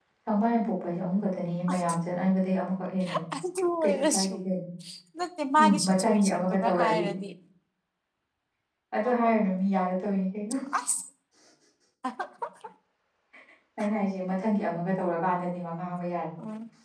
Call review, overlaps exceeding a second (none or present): present